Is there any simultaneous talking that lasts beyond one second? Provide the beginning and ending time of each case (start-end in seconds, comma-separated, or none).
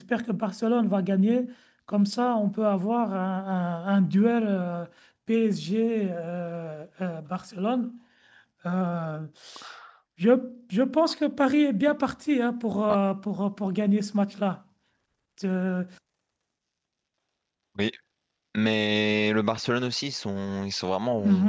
none